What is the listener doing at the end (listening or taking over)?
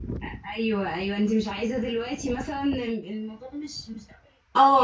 taking over